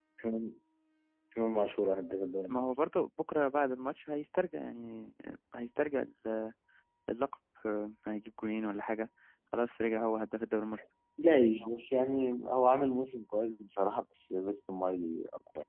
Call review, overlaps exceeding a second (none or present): none